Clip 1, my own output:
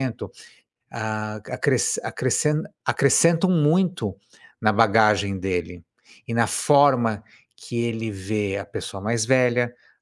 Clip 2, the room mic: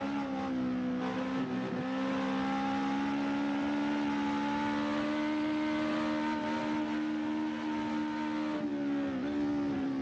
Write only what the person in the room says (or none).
none